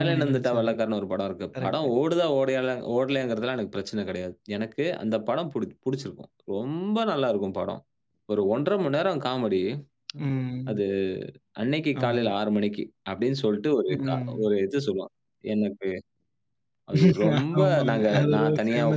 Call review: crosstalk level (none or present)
present